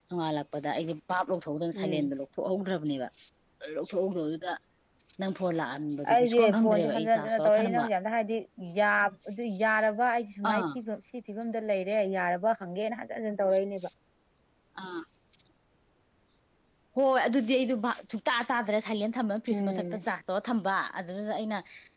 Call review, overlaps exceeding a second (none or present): present